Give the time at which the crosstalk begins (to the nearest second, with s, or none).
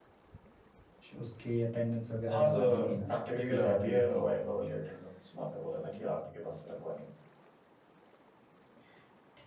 2 s